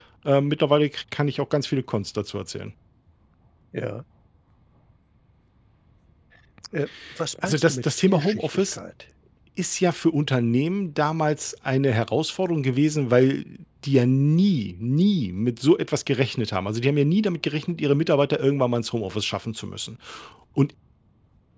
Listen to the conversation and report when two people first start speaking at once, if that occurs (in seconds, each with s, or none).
7.4 s